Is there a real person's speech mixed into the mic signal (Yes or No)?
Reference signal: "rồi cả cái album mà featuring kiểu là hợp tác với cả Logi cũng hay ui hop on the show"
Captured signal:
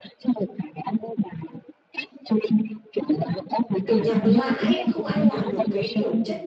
Yes